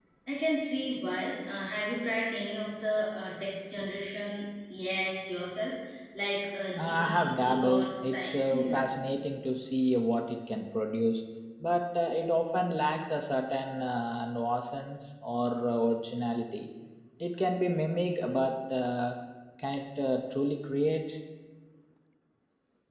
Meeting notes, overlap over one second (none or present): present